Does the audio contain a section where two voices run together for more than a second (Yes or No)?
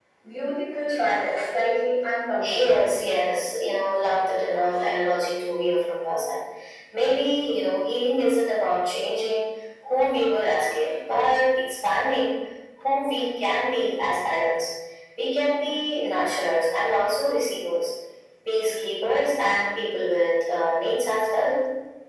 No